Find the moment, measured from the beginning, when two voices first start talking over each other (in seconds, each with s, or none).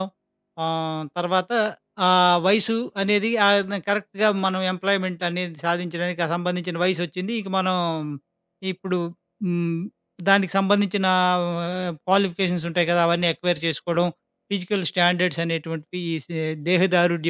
none